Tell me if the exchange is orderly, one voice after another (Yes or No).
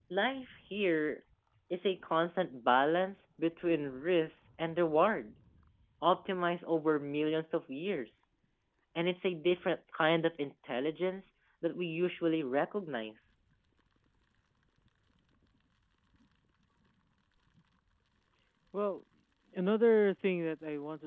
Yes